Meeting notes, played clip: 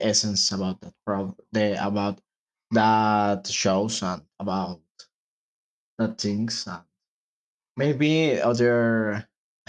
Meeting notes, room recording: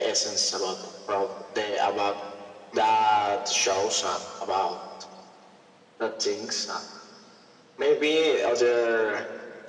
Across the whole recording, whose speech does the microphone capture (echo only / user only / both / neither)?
echo only